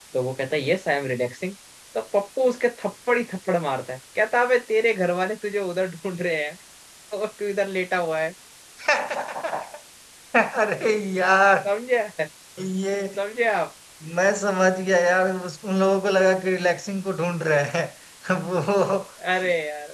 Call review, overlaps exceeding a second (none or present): none